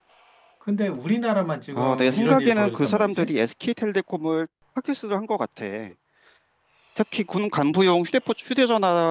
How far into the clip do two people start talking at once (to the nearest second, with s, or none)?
2 s